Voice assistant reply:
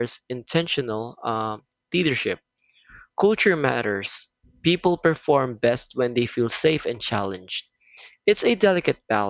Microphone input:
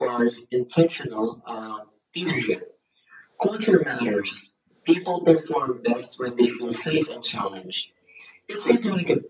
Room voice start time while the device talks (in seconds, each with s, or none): none